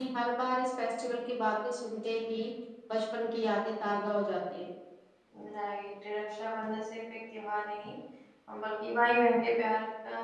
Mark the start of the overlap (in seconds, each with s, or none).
none